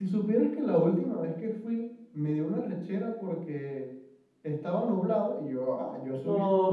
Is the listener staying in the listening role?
Yes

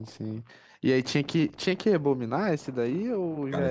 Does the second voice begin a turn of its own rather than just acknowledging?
Yes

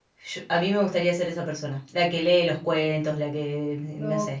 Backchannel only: No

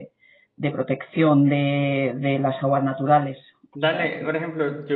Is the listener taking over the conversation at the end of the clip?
Yes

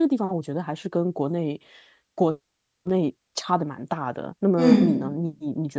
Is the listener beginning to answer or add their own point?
No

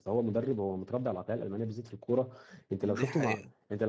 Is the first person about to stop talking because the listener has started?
No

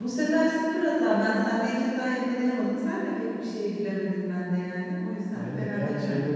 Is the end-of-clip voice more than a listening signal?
Yes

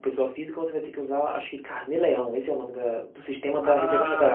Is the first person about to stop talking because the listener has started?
Yes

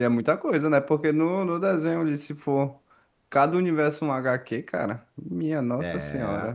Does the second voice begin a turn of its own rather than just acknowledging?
Yes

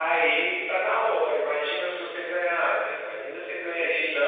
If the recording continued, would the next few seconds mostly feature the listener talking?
No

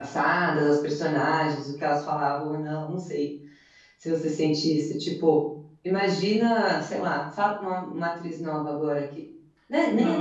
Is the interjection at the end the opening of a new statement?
Yes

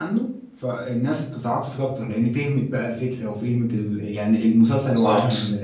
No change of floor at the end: Yes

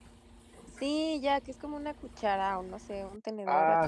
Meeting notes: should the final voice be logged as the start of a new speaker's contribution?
Yes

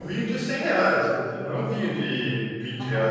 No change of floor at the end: No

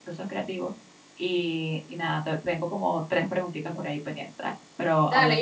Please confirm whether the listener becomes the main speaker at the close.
Yes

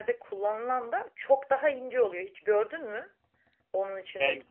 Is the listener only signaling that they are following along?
No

